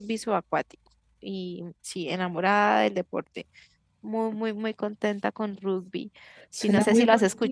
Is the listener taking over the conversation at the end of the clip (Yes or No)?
Yes